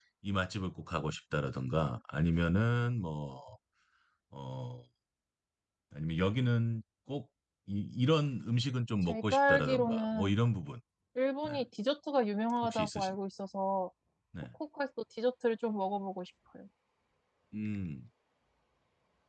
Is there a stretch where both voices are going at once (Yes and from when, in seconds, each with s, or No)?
Yes, from 9.0 s